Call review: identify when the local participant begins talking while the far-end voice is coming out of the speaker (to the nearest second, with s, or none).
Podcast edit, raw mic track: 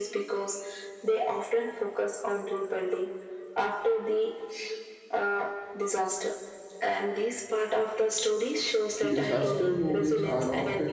9 s